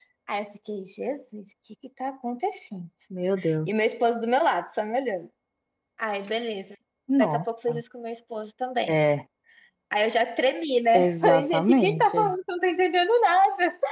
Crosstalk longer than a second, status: present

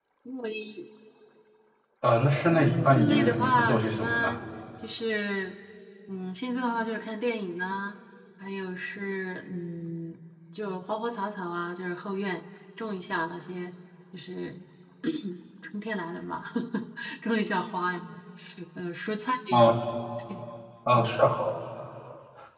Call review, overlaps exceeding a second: present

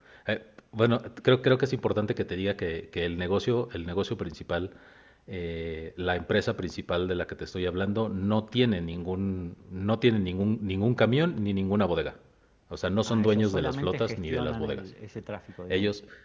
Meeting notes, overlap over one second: present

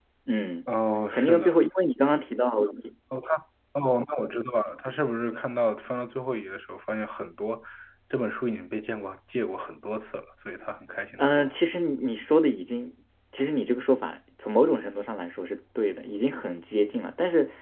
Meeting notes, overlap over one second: none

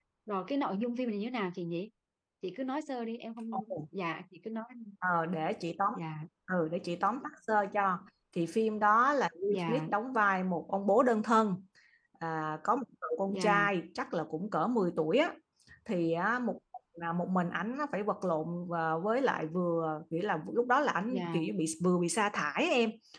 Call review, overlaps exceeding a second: none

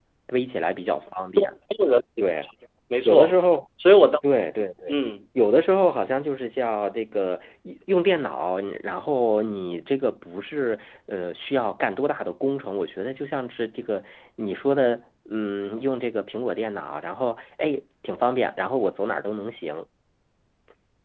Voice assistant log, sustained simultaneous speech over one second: none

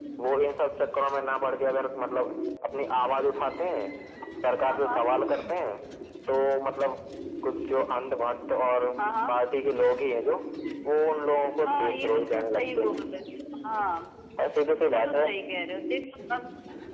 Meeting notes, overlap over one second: present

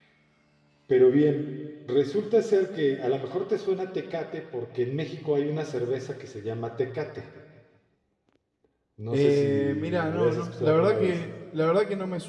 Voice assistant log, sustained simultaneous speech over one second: present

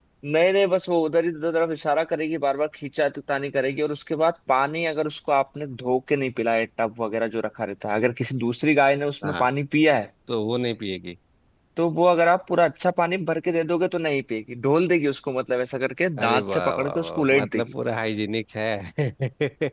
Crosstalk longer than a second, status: present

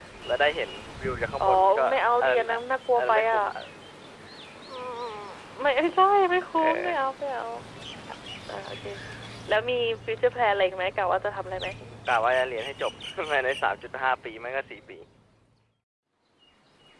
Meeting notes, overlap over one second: none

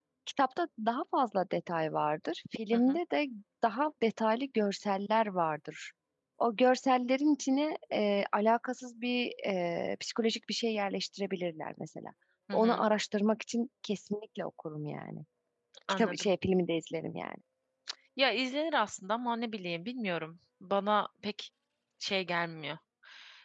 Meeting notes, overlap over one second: none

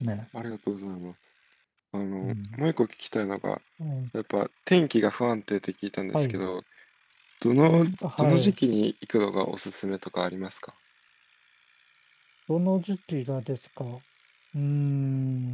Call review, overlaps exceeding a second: none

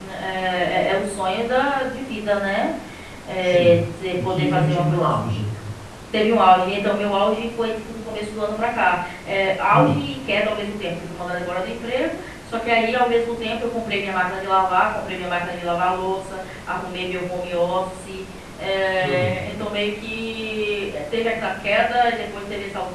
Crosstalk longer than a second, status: present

